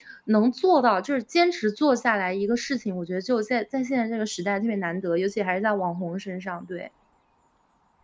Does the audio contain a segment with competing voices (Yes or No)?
No